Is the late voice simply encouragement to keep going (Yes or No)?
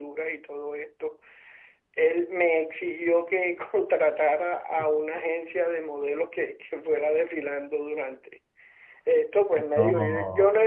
Yes